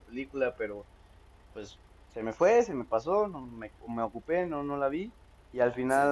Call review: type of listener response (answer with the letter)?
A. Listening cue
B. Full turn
A